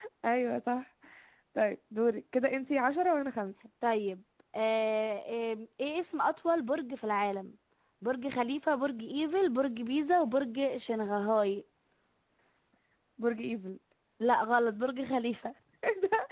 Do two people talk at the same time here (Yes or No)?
No